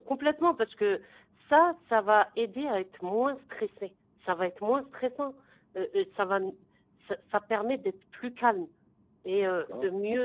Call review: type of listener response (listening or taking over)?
listening